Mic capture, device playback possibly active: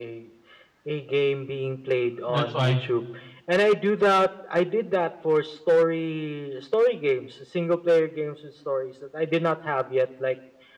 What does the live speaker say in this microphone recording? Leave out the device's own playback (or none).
That's why.